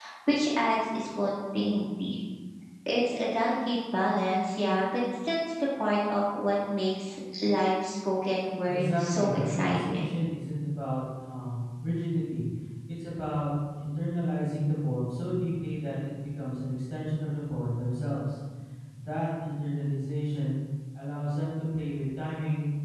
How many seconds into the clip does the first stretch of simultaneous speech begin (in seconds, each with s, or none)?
8.6 s